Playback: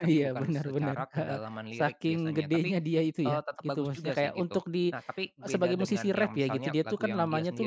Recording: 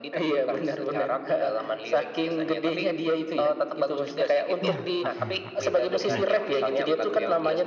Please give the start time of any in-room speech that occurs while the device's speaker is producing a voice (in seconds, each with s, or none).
4.6 s